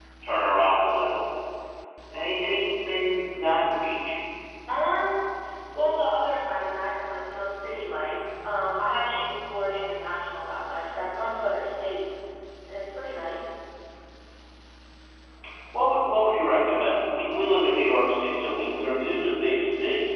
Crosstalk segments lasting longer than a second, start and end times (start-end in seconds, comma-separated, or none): none